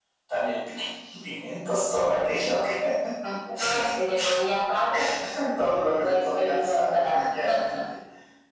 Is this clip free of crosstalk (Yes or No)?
No